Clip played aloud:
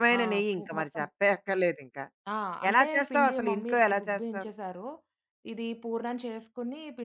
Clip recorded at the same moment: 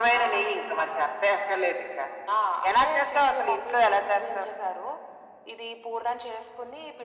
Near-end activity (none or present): none